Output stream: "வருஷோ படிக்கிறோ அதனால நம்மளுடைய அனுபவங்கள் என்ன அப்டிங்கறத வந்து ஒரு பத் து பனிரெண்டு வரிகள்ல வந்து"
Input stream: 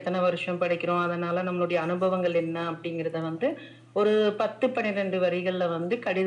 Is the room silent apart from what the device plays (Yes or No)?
Yes